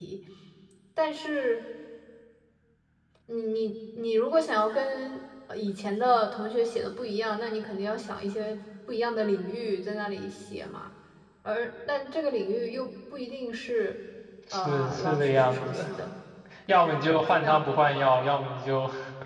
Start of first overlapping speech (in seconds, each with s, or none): 14.5 s